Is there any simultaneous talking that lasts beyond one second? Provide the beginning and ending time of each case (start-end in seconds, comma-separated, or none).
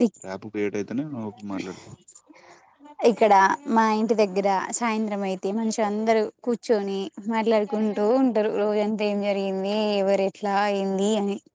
none